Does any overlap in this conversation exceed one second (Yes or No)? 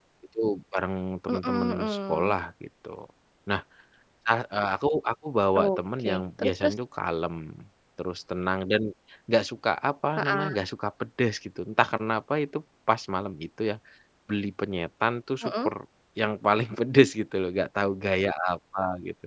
Yes